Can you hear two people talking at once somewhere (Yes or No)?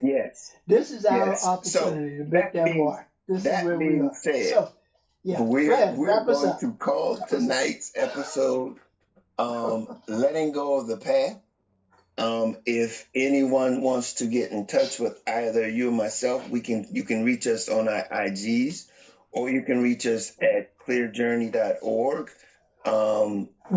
Yes